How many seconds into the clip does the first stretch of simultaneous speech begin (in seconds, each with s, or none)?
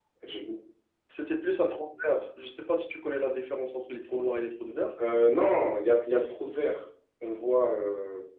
none